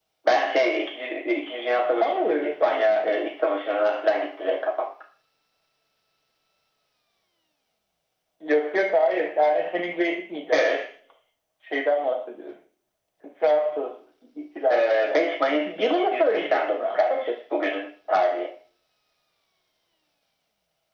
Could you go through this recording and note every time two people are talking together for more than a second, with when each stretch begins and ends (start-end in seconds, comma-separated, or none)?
1.8-3.2, 14.7-17.3